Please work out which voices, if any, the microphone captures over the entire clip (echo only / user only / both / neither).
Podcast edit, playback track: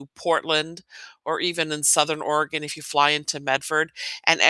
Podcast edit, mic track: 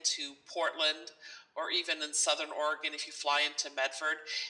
echo only